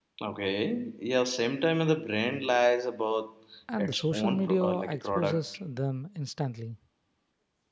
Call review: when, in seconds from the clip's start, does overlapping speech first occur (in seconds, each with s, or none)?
3.7 s